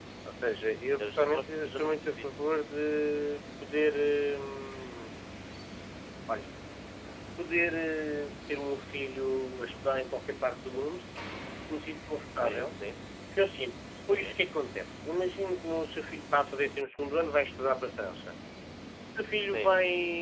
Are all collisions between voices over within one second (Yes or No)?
No